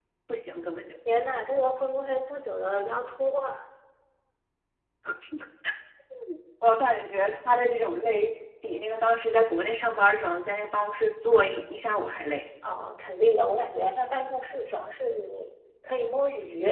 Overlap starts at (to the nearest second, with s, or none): none